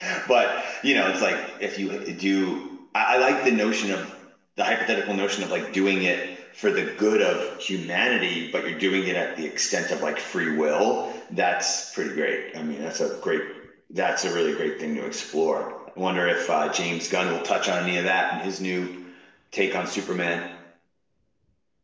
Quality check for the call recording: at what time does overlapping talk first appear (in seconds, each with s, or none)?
none